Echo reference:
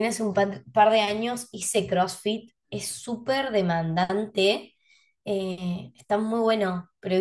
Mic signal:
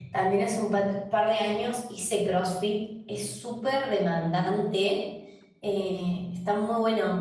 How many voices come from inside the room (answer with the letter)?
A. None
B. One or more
A